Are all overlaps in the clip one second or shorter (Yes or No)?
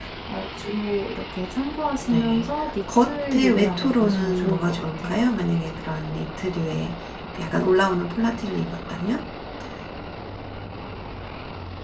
No